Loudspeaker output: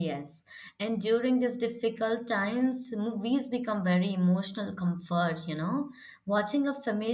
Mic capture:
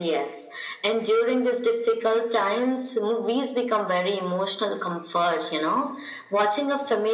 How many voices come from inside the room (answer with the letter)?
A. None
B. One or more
A